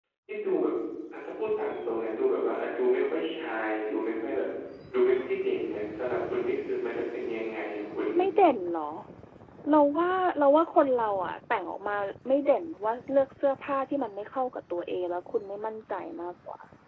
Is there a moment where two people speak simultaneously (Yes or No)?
No